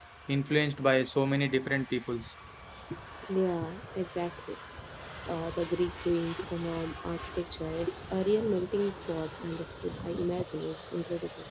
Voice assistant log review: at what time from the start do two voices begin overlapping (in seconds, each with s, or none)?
none